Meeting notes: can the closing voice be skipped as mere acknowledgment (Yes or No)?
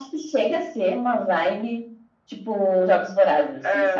No